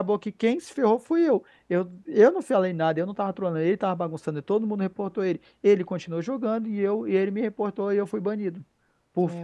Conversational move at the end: listening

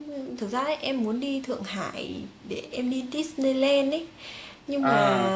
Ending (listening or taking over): listening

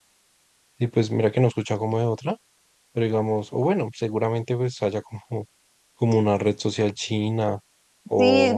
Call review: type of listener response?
taking over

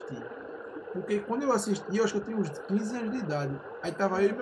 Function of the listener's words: listening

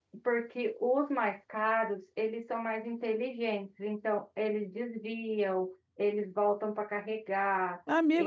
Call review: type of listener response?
taking over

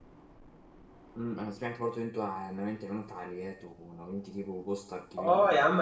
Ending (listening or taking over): taking over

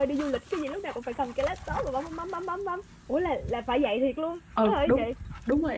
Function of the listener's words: taking over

